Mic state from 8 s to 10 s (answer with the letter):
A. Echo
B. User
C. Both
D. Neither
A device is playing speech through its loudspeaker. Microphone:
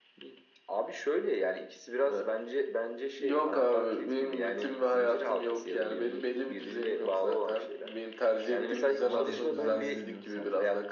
C